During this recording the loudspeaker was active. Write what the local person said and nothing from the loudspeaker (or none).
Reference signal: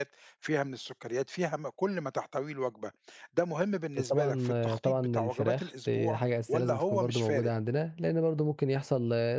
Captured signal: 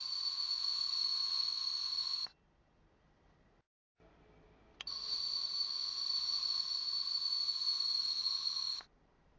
none